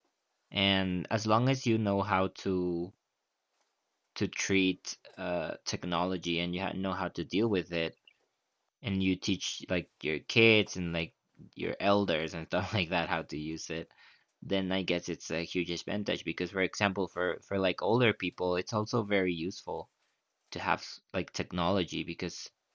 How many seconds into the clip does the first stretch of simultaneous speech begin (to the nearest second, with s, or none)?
none